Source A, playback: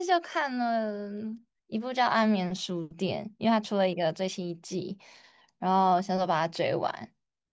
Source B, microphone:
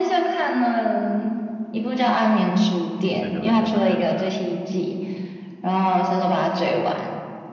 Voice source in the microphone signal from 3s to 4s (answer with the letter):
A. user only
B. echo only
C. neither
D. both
D